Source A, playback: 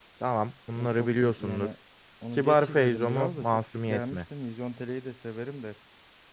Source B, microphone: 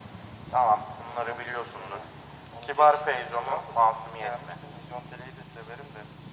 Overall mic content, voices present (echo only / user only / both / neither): echo only